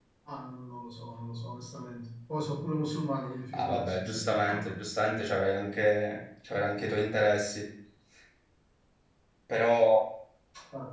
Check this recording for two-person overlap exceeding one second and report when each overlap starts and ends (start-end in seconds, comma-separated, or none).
3.5-4.8